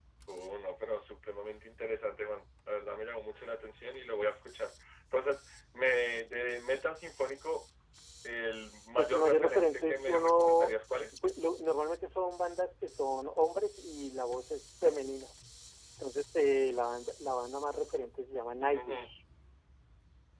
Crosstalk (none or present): present